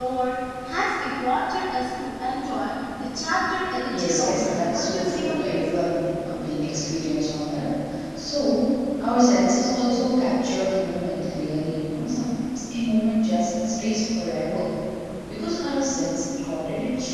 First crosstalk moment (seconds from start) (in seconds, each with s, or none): 3.9 s